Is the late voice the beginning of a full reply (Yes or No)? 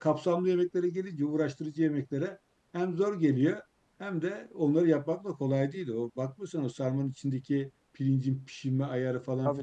No